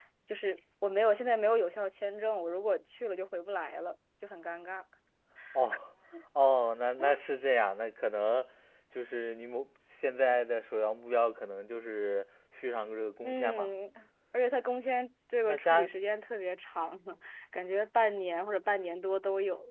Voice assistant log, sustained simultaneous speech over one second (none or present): none